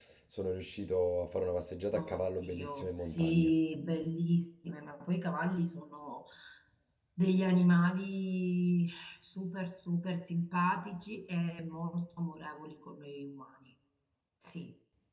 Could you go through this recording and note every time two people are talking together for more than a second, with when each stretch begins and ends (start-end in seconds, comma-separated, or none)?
1.9-3.5